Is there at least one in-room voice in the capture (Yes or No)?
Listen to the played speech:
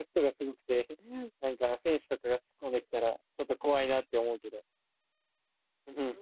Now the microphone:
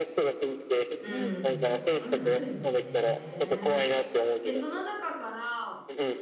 Yes